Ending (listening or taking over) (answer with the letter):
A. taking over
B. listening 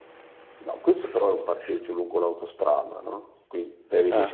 B